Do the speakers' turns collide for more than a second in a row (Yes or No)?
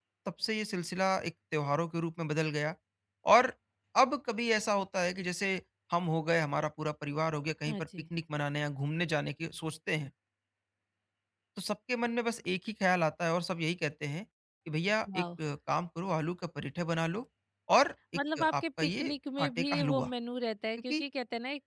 Yes